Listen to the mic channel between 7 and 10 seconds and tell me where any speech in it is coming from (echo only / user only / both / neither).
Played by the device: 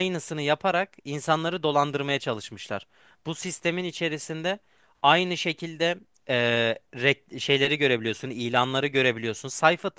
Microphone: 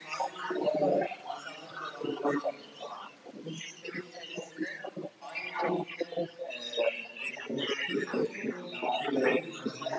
both